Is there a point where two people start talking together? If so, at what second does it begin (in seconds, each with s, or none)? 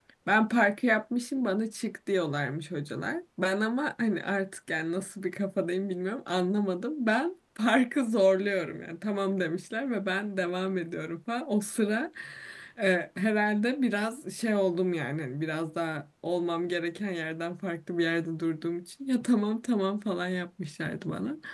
none